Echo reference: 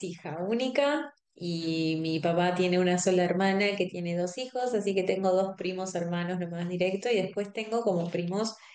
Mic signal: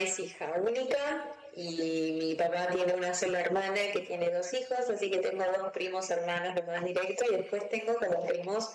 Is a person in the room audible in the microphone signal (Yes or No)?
No